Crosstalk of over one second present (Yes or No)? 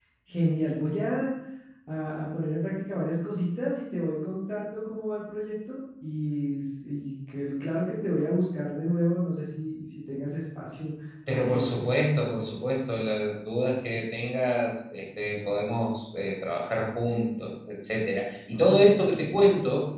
No